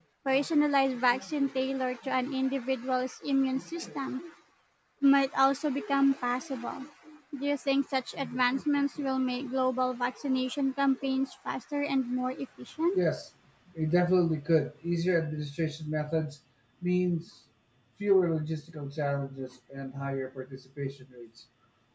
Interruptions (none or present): none